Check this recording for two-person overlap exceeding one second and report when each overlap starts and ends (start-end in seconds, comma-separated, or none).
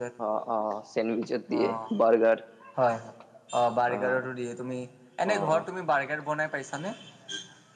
none